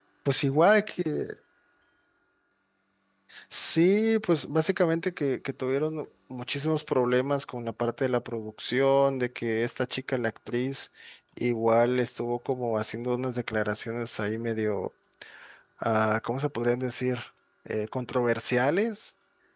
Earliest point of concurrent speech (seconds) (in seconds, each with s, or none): none